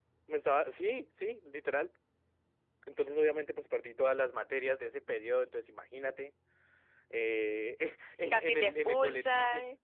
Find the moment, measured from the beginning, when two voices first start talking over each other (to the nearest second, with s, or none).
8 s